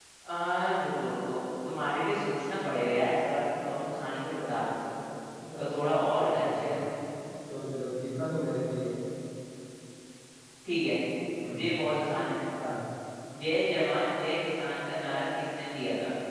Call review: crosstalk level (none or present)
present